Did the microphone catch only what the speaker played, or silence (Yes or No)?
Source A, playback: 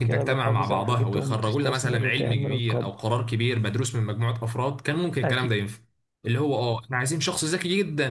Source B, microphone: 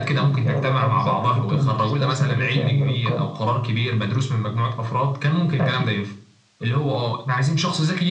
Yes